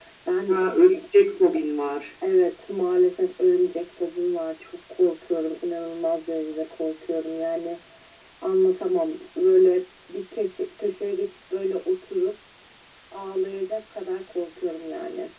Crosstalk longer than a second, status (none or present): none